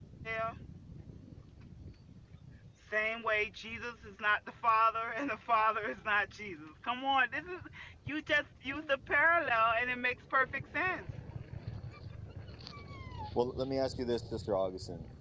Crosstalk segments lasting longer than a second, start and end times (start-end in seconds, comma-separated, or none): none